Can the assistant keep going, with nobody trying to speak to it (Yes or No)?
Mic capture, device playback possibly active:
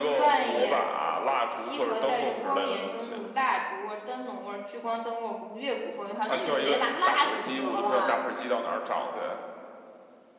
No